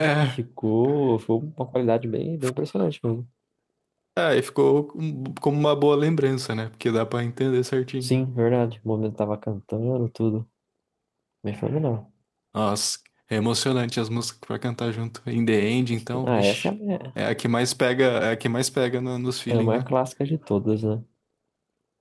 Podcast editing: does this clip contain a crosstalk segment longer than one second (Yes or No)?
No